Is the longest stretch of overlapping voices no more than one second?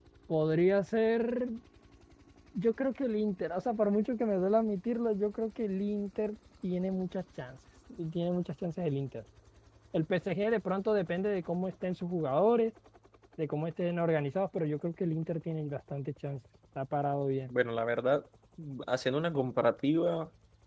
Yes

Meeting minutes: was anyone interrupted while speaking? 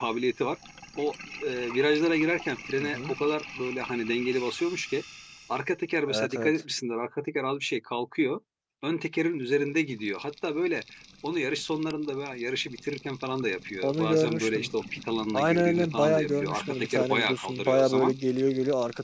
Yes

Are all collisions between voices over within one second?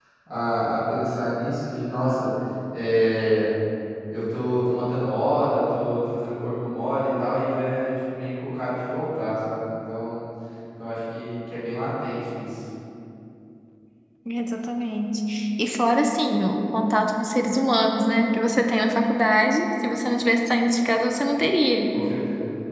Yes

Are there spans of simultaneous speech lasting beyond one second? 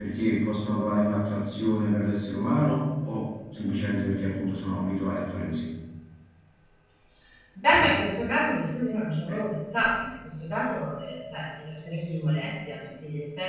No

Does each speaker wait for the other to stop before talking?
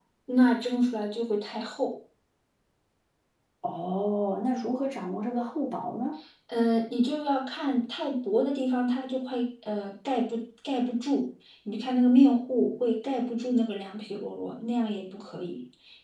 Yes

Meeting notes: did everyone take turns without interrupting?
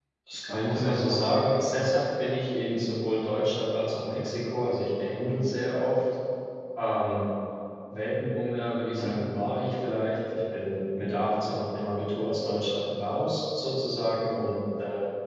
No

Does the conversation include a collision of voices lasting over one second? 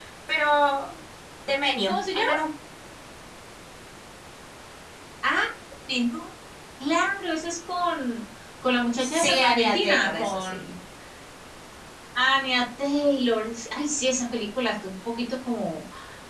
Yes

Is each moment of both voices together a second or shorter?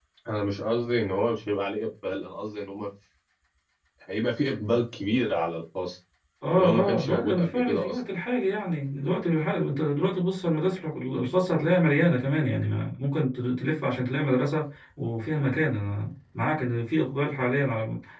No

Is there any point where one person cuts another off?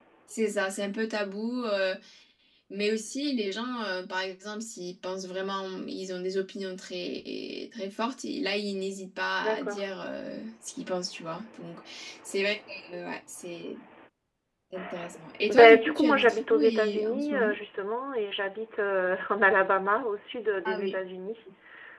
Yes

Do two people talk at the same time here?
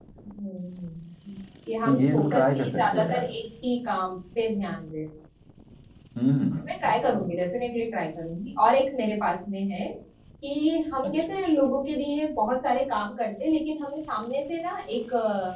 Yes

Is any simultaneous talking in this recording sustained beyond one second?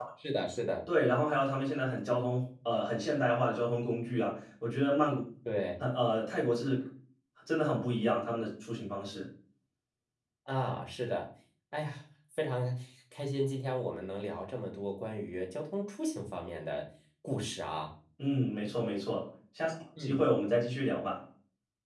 No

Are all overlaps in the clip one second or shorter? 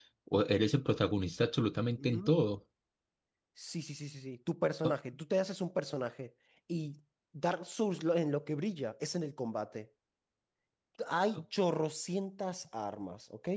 Yes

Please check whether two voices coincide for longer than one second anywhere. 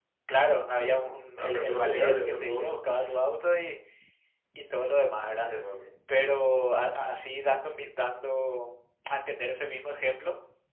Yes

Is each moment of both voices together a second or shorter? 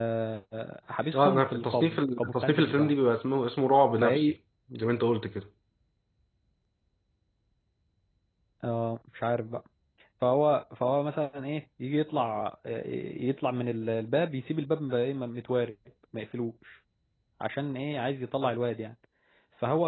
No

